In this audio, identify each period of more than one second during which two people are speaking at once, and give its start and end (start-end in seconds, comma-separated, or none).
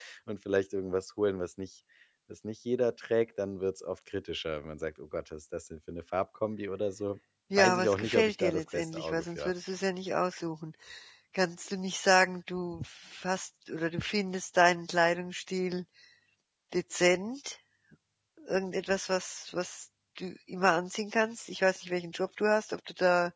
7.6-9.5